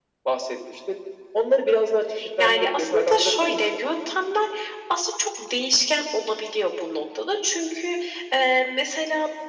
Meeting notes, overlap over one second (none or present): present